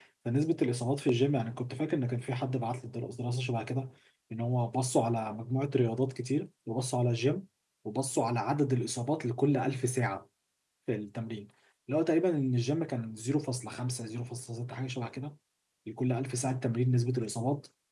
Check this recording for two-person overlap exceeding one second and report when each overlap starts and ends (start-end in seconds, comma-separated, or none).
none